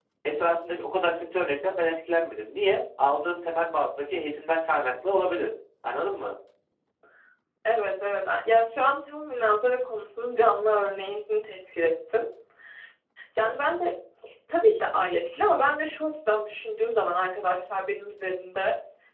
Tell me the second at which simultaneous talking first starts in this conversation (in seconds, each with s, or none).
none